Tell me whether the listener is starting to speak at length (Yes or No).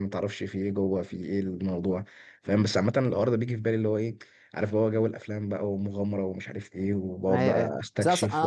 Yes